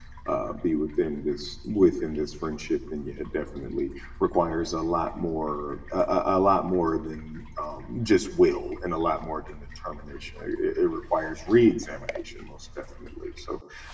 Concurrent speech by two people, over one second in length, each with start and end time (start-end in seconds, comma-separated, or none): none